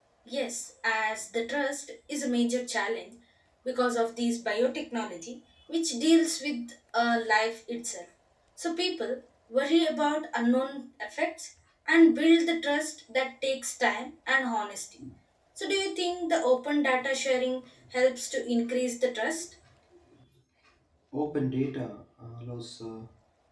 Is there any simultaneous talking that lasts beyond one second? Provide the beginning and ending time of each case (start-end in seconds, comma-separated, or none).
none